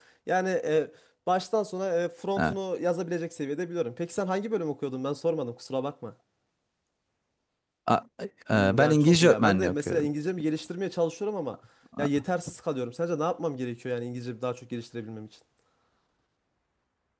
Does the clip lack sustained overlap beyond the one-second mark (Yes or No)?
No